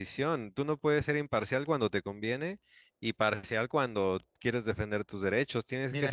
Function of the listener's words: taking over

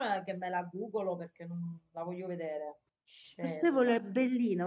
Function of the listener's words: taking over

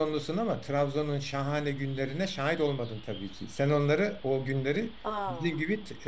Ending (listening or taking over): listening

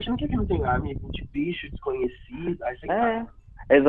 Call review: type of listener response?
taking over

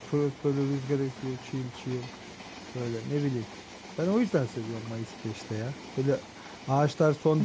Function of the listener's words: listening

